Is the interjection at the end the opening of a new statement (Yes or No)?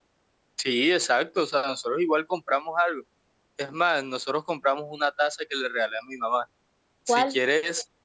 No